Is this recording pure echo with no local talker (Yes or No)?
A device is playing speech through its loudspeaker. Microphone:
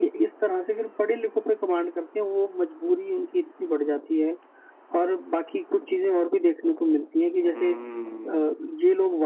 No